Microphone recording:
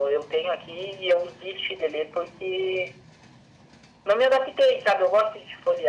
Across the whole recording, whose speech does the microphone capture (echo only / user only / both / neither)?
echo only